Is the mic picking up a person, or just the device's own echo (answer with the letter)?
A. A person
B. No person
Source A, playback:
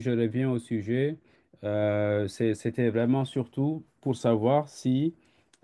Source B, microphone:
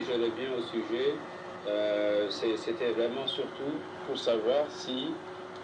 B